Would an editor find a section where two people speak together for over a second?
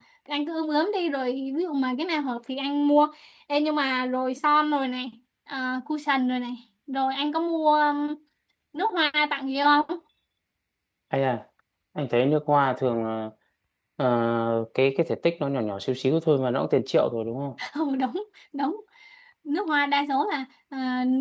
No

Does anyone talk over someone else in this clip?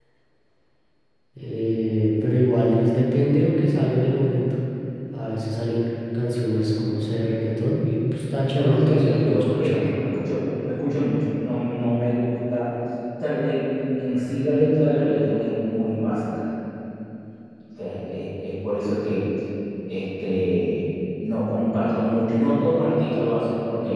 Yes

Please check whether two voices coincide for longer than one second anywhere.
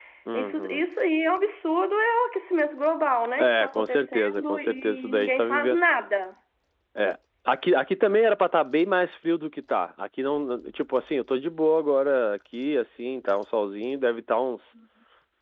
Yes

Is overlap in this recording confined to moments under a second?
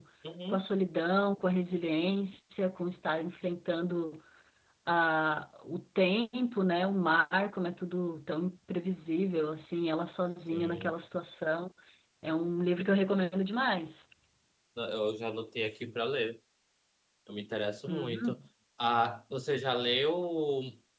Yes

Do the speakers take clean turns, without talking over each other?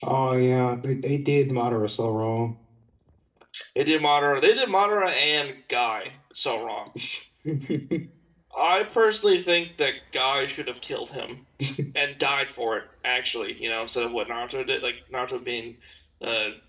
Yes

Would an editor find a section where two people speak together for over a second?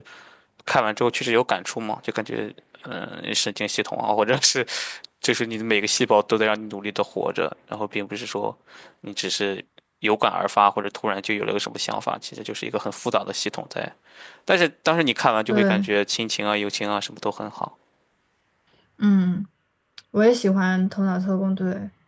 No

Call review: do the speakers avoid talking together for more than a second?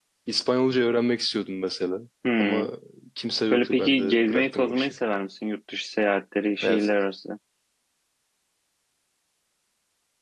No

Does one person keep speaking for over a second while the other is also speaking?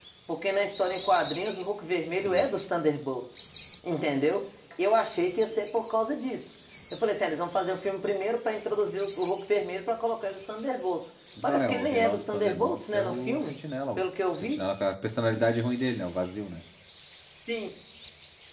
Yes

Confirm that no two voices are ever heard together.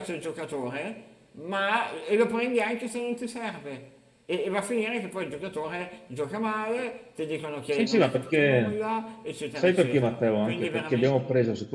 No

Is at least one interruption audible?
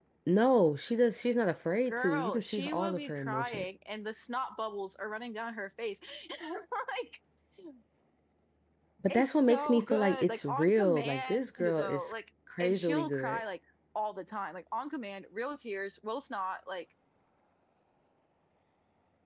Yes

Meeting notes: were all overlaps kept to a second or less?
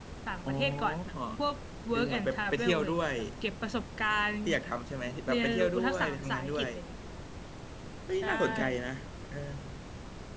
No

